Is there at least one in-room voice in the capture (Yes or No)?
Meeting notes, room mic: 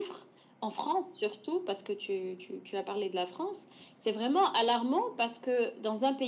No